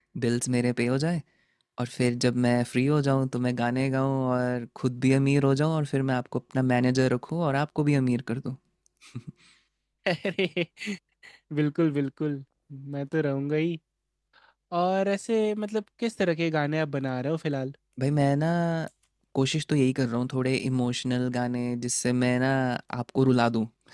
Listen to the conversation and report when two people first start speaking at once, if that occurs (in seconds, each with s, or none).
none